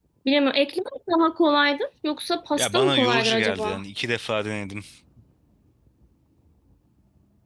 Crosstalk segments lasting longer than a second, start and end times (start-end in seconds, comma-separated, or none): 2.6-3.8